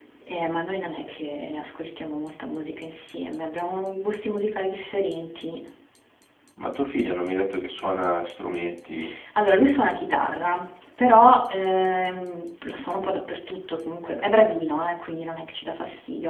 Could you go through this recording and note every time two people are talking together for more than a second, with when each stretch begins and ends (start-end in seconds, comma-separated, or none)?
none